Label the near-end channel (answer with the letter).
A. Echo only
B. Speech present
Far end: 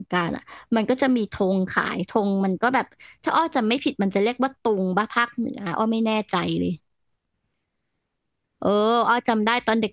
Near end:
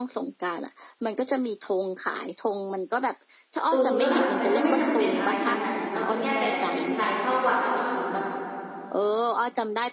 B